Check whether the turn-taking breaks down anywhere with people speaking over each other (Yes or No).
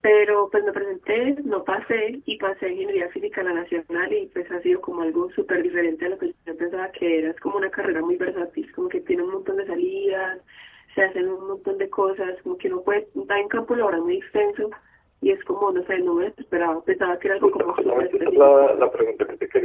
Yes